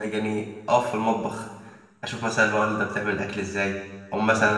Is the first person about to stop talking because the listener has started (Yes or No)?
No